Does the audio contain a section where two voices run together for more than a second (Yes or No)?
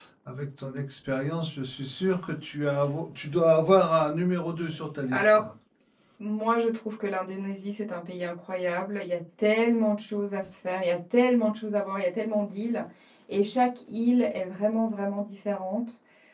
No